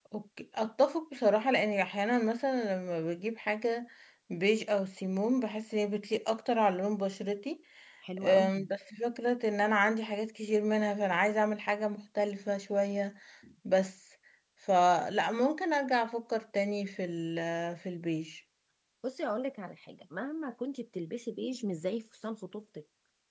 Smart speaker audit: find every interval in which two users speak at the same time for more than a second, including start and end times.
none

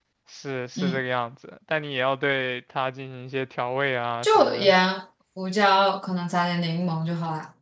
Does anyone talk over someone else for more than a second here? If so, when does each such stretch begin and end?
none

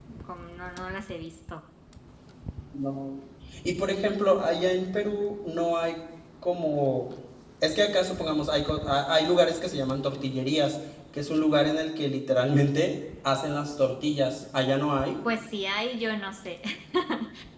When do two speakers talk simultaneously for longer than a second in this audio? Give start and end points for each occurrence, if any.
none

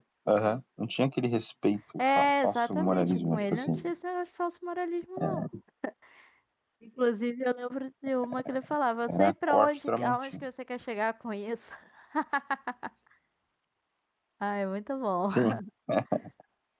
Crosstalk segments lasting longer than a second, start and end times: 2.0-3.9, 9.1-10.4

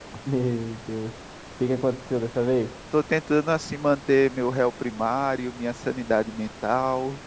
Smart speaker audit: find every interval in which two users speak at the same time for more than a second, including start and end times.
none

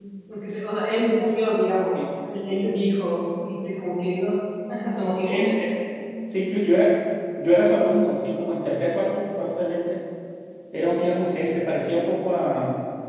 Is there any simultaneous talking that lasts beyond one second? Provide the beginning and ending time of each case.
none

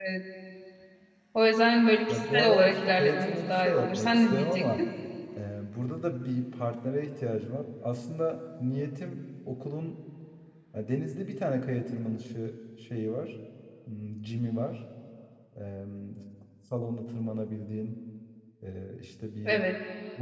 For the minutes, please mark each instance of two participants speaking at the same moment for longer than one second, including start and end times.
2.1-4.6

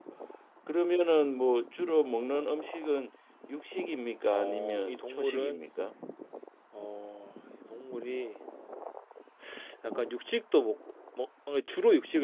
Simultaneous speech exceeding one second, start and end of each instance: 4.3-5.6

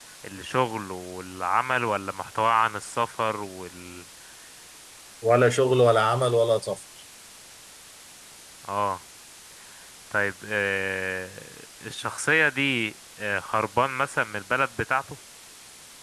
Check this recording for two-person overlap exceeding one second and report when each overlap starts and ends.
none

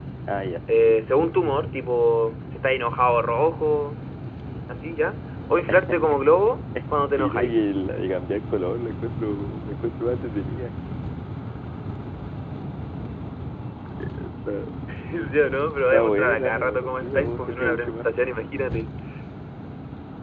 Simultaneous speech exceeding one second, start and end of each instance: 15.9-18.1

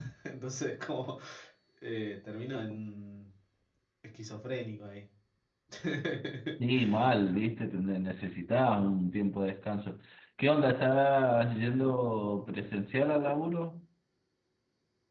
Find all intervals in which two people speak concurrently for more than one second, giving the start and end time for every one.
none

